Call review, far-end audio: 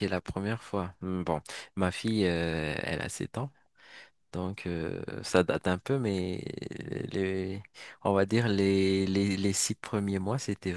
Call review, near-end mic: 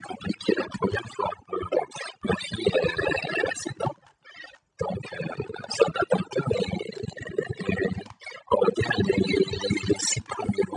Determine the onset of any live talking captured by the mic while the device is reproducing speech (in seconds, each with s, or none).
none